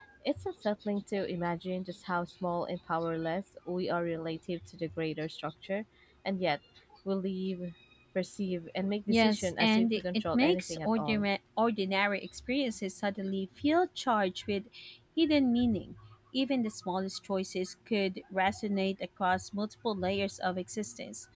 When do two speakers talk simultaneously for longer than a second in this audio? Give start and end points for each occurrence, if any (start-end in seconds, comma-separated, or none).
9.1-11.3